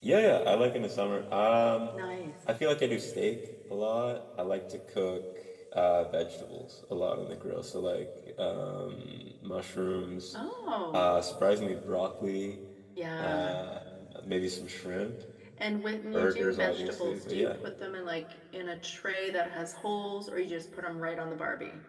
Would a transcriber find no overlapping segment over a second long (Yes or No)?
No